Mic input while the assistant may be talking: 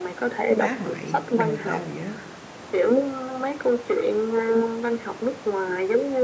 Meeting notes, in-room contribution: present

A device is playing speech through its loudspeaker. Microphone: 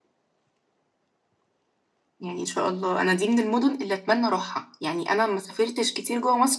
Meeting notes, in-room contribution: none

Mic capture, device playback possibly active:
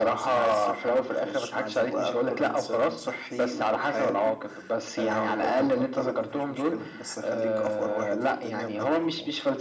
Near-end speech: none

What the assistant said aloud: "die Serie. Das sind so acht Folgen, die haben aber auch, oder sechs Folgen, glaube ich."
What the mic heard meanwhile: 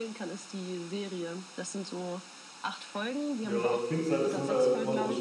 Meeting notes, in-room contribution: present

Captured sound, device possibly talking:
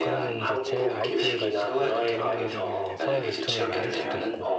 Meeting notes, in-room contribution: present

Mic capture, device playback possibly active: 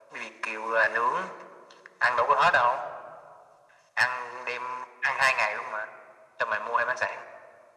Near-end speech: none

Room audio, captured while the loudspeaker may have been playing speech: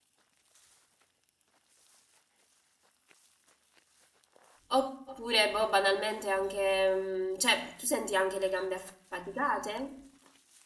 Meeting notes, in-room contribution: present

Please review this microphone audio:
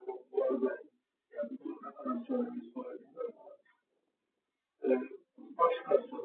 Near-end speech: none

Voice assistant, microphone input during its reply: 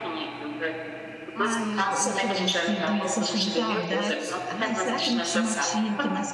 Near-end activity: present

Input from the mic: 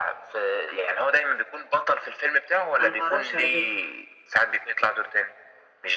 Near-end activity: present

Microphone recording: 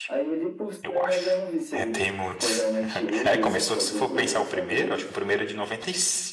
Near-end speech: present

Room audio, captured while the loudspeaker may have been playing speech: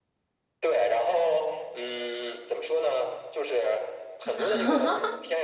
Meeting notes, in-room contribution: present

